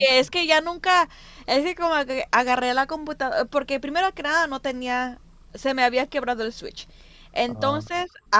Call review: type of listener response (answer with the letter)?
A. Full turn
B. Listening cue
B